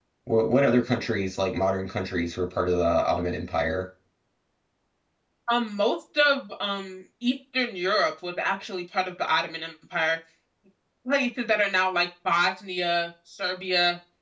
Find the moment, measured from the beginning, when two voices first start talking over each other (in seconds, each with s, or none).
none